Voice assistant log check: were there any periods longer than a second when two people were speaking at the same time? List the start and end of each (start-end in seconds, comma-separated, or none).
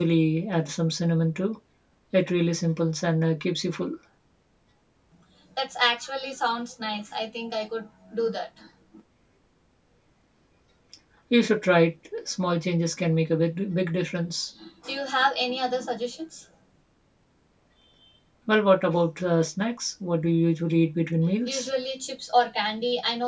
none